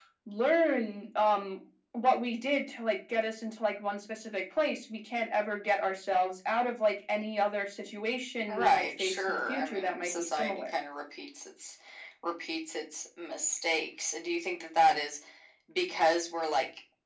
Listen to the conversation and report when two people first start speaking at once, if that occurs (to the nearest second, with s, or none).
8 s